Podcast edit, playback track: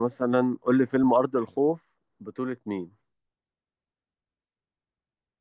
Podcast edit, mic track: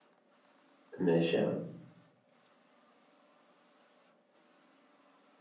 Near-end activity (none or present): present